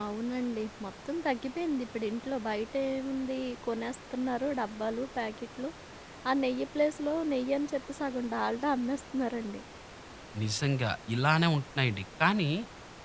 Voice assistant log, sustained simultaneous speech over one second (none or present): none